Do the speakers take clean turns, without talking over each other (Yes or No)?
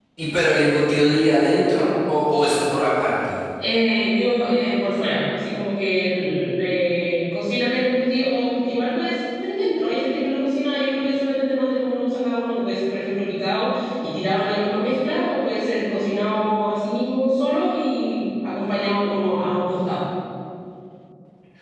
Yes